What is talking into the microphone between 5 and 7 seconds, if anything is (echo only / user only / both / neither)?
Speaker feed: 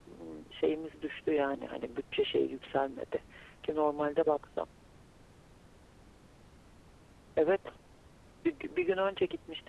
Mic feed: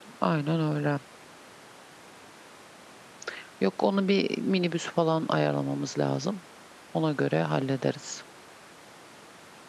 user only